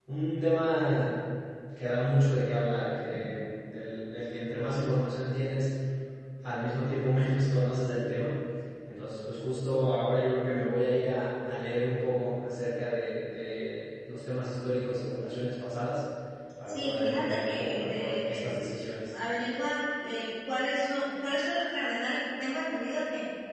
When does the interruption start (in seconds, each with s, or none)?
16.7 s